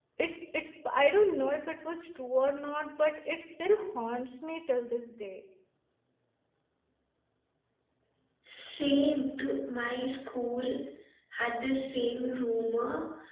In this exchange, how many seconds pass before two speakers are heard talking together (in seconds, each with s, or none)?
none